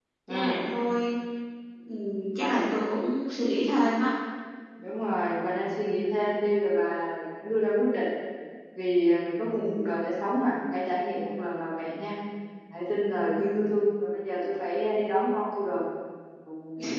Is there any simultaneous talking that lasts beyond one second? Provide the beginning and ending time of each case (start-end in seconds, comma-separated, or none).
none